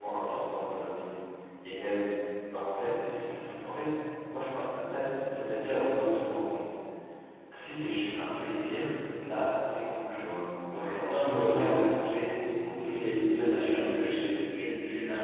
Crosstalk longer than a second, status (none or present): present